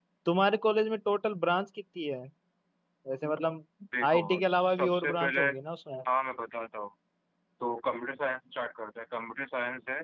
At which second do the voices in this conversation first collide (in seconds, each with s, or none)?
4.0 s